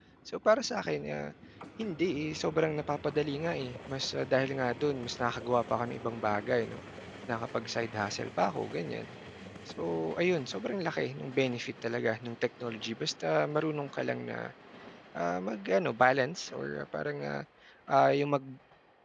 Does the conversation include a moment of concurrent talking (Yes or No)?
No